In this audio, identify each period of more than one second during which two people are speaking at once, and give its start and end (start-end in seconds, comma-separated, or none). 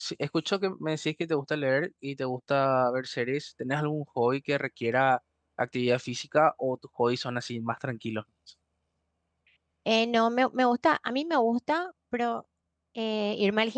none